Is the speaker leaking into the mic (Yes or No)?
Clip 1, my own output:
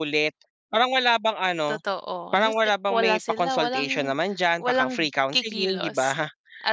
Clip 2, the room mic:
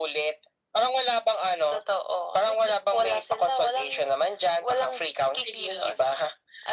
Yes